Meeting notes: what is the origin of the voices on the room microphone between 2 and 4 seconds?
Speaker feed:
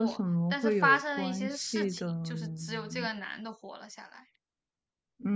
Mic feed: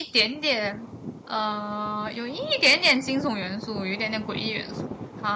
user only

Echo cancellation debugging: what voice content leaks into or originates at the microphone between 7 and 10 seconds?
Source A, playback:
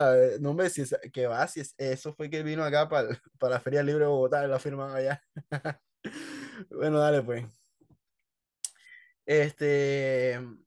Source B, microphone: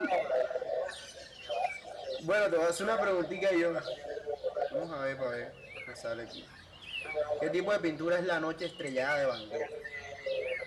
both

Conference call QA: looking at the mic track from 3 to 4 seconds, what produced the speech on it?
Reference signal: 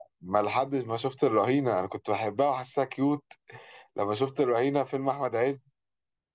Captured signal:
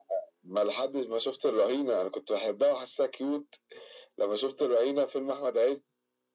echo only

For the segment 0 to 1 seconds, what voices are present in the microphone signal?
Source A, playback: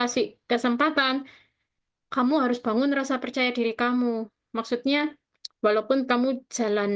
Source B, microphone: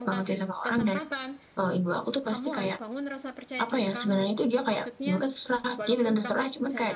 both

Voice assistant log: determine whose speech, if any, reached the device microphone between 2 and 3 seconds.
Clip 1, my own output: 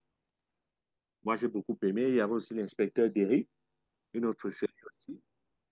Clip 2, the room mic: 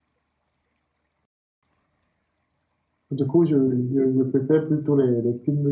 neither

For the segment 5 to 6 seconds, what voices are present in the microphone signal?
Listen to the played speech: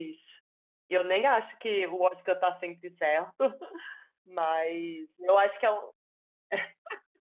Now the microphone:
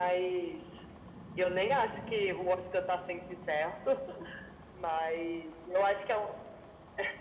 echo only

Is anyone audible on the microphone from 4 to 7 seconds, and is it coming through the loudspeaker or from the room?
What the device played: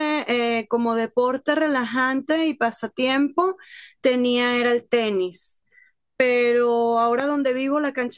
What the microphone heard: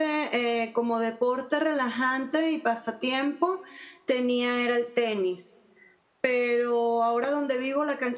echo only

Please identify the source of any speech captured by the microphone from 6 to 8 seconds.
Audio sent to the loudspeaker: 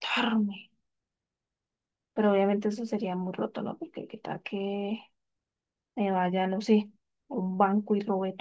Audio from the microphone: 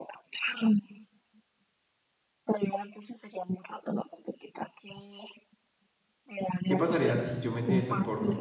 both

